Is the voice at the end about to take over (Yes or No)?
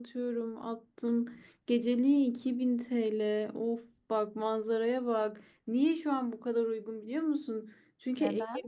No